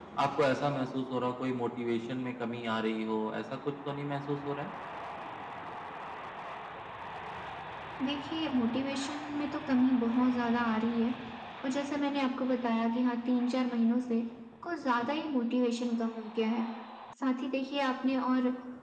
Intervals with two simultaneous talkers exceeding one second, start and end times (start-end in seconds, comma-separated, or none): none